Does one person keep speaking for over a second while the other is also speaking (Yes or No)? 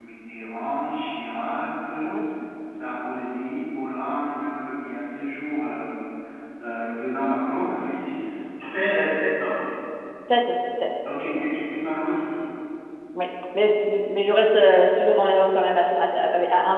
No